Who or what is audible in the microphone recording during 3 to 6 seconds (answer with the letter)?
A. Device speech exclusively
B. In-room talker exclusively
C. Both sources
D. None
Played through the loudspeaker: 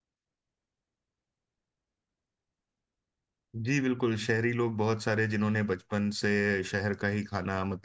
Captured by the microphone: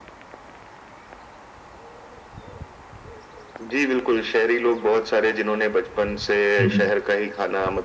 A